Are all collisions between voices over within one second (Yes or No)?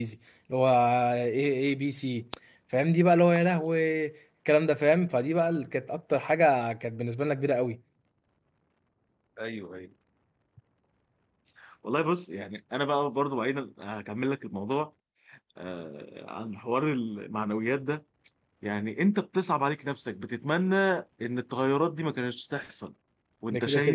Yes